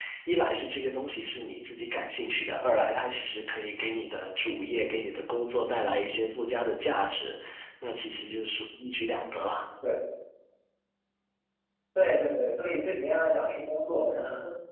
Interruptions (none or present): none